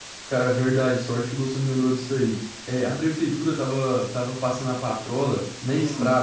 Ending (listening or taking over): listening